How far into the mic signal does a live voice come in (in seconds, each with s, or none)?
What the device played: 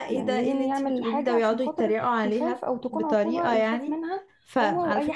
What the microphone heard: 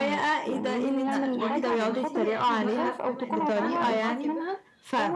1.1 s